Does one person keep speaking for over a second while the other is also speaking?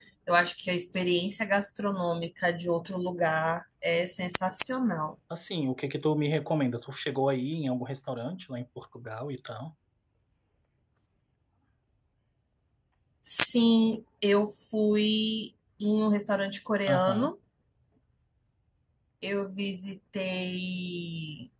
No

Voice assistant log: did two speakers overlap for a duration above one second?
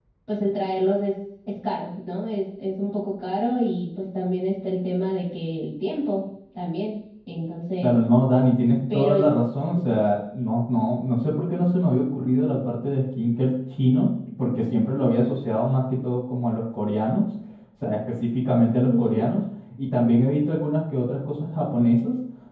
No

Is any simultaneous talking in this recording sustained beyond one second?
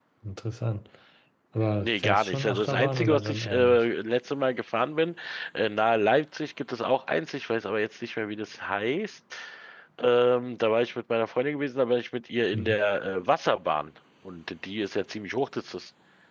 Yes, from 1.8 s

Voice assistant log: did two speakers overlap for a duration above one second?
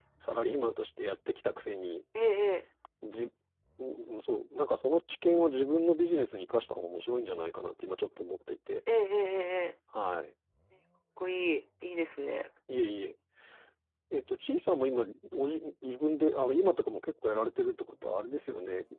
No

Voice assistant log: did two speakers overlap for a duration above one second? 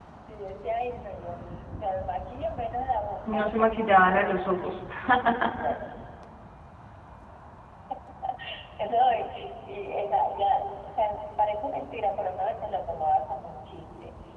Yes, from 3.3 s

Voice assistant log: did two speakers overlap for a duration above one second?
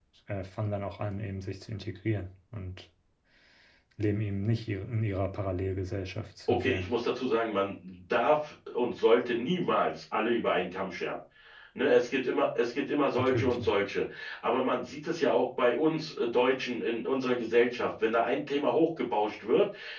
No

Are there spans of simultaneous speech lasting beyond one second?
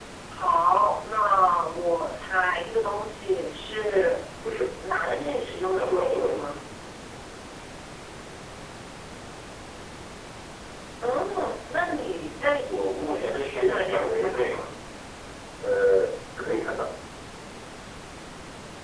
Yes, from 5.0 s

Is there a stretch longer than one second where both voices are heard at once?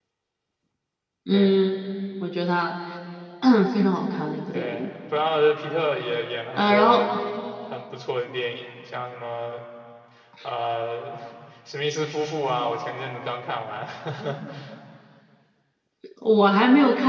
No

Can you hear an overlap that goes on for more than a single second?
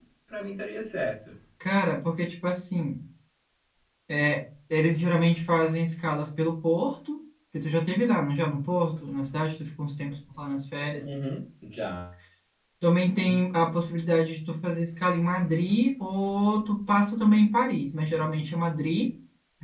No

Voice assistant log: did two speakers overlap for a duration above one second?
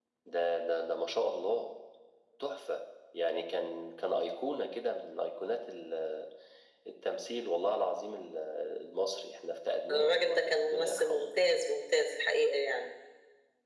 Yes, from 9.9 s

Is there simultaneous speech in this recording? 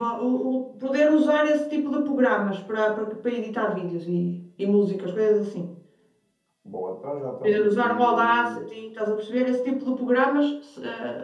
Yes, from 7.4 s

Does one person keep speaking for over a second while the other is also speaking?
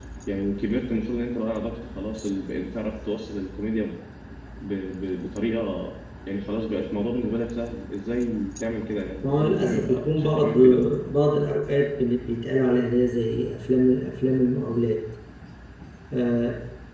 Yes, from 9.2 s

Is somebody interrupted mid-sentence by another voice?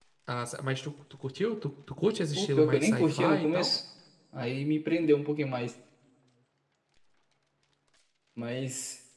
Yes, from 2.4 s

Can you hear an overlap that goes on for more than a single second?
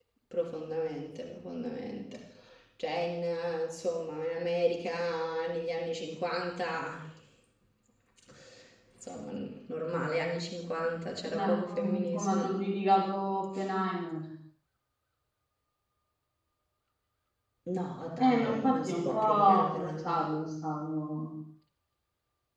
Yes, from 11.3 s

